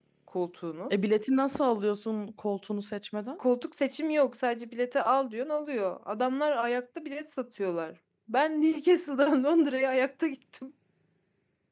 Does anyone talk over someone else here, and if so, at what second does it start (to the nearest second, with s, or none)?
none